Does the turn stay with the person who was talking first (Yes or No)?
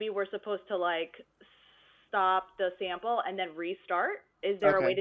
Yes